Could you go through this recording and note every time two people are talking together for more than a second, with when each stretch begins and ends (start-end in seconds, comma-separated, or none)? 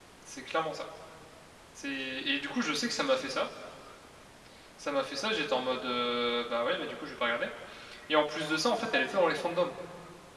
none